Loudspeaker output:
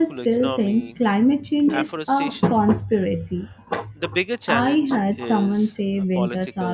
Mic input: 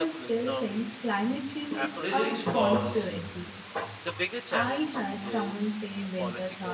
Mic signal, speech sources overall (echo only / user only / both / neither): both